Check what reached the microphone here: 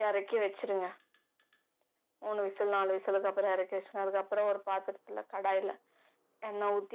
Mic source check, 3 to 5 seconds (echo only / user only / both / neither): echo only